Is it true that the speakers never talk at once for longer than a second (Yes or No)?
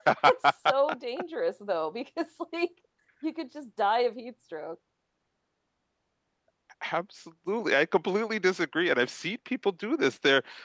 Yes